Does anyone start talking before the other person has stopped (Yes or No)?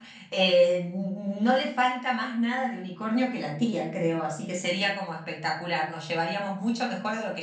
No